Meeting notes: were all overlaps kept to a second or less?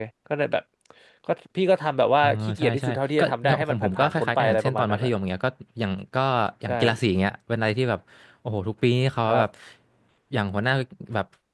No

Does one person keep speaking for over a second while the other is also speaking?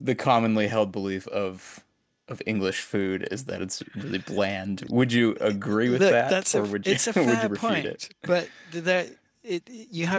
Yes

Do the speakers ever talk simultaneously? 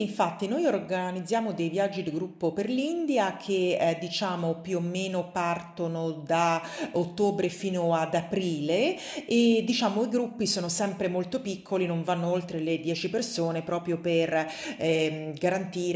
No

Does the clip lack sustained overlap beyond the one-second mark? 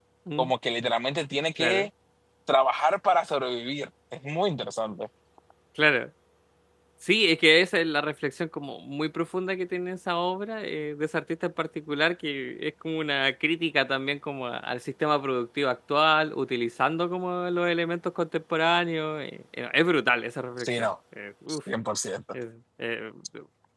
Yes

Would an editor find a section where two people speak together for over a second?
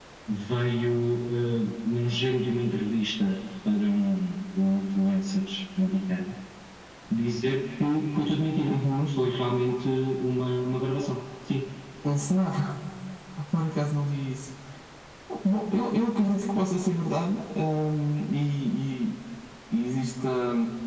No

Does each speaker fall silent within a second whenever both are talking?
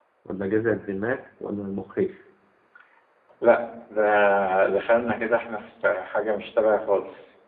Yes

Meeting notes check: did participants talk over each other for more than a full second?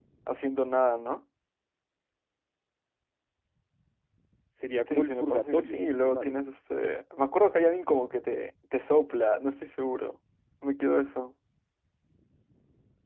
Yes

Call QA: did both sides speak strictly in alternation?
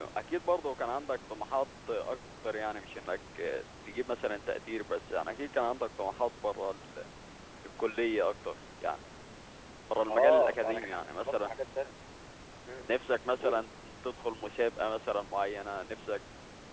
No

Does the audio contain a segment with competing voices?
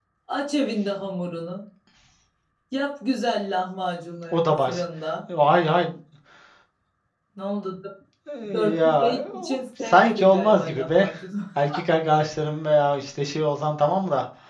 Yes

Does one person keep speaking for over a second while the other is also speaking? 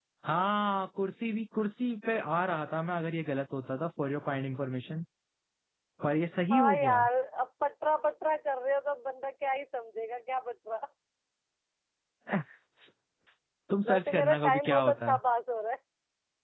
Yes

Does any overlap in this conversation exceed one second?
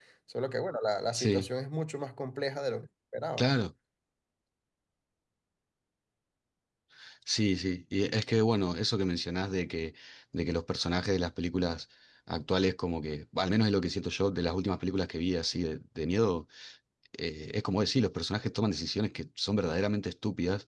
No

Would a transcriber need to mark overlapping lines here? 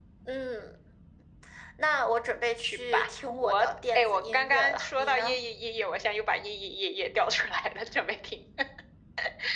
Yes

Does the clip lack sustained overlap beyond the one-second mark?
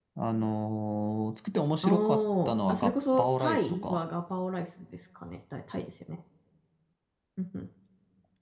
No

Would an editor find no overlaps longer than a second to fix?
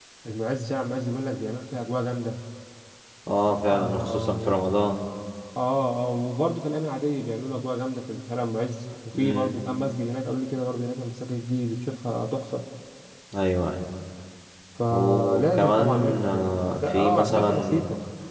No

